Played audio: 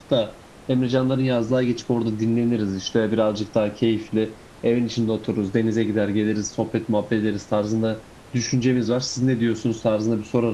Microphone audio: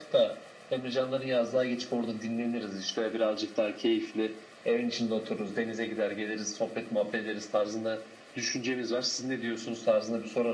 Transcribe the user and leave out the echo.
none

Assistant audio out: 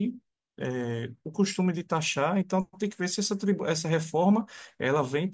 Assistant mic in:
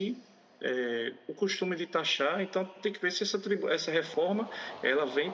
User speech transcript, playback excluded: none

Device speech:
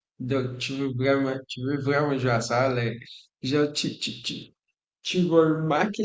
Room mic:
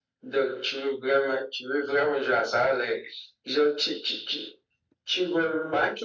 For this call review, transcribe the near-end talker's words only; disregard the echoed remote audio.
none

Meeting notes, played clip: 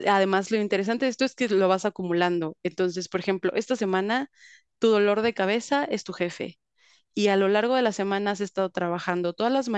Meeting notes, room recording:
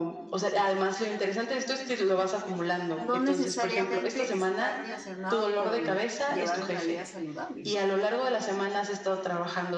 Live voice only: no necesariamente está relacionado con llevar una vida saludable

